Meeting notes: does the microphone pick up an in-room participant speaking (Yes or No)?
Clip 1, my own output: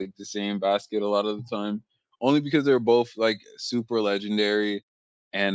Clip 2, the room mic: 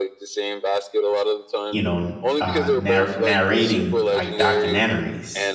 Yes